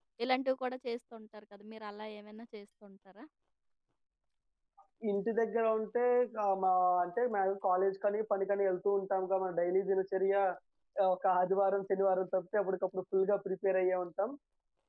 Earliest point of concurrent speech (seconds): none

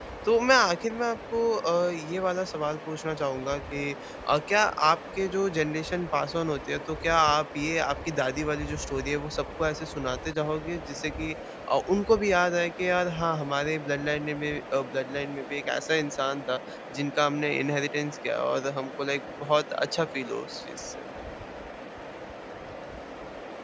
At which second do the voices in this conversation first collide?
none

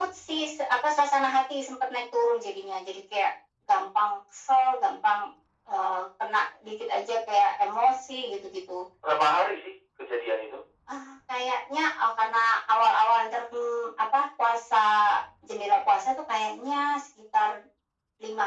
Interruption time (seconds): none

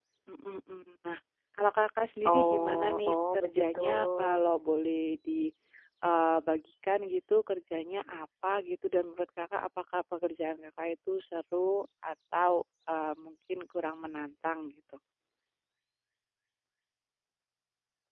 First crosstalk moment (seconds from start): 2.2 s

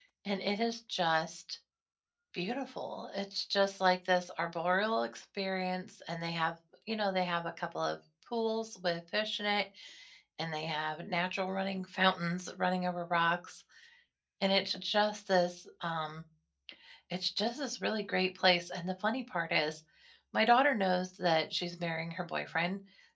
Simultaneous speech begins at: none

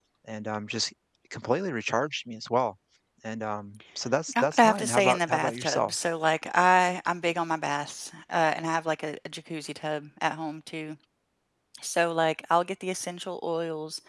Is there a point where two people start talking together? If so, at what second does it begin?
4.3 s

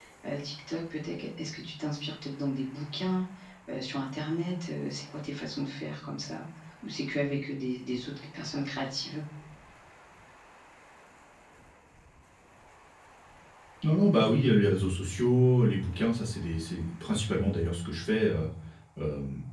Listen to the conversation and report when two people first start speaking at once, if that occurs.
none

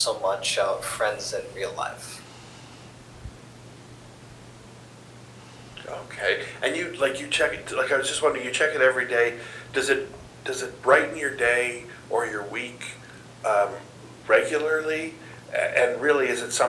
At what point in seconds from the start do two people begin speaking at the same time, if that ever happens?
none

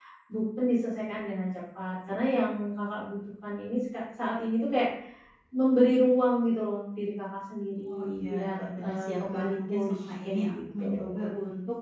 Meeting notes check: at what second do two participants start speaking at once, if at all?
7.9 s

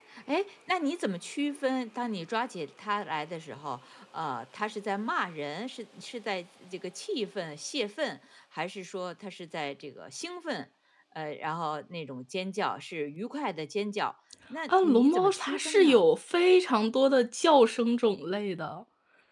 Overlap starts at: 14.7 s

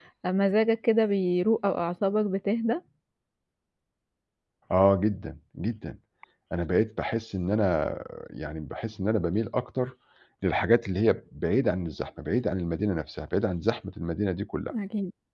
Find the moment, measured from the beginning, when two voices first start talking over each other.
none

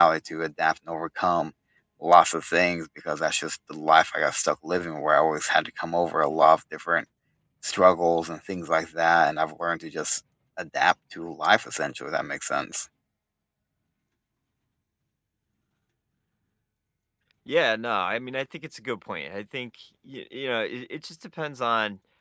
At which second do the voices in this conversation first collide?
none

